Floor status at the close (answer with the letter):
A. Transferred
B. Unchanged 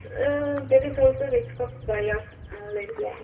B